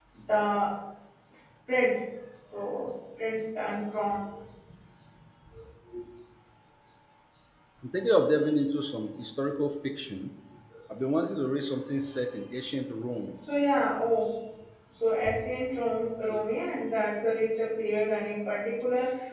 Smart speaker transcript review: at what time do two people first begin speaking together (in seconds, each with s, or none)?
none